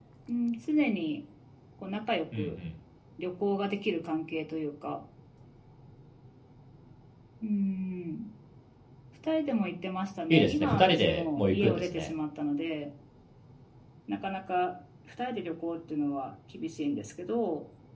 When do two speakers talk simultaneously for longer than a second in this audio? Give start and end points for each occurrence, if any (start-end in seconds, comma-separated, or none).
10.3-12.1